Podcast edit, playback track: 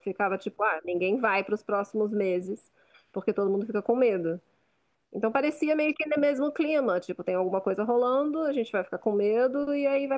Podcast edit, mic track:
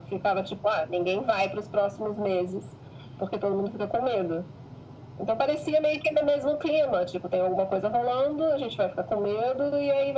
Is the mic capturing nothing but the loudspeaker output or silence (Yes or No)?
Yes